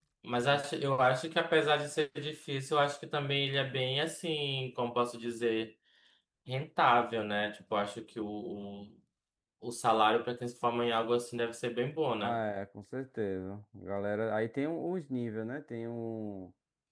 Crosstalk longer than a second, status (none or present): none